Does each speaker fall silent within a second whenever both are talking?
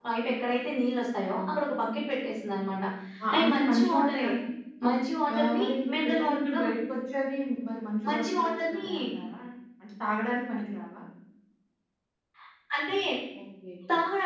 No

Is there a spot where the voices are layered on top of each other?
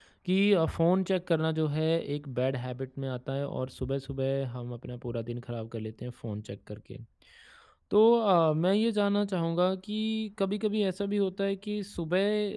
No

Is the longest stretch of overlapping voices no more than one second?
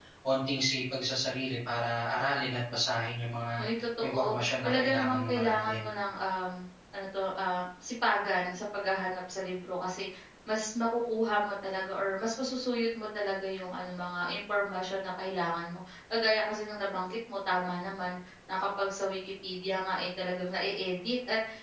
No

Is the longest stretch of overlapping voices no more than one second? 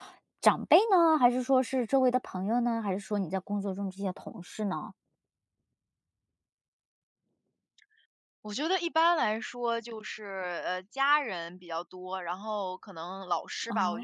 Yes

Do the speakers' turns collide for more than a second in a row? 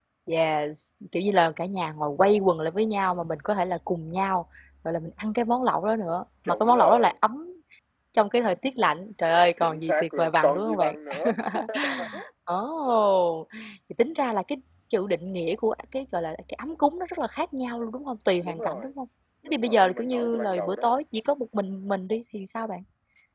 Yes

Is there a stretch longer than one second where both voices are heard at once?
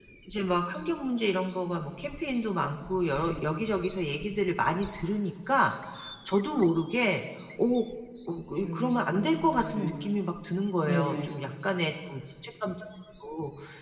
Yes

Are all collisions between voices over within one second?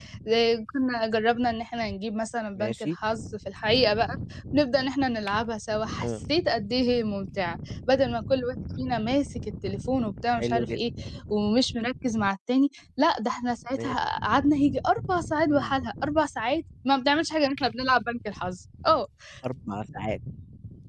Yes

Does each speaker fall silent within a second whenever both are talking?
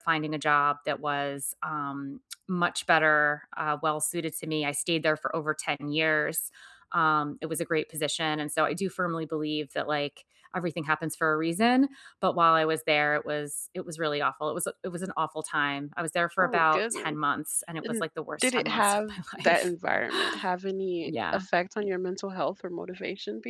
No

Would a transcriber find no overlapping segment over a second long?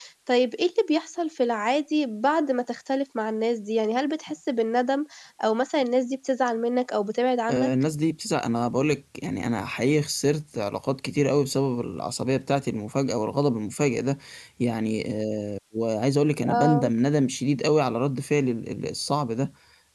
Yes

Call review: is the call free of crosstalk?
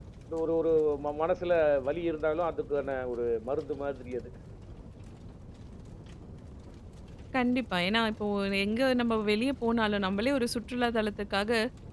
Yes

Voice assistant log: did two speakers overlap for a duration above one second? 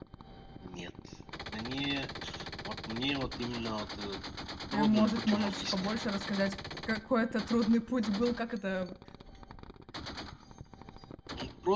Yes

